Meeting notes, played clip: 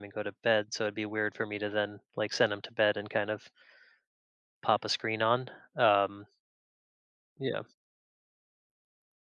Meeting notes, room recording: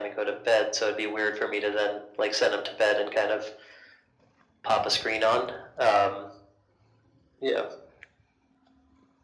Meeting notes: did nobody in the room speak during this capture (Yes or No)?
Yes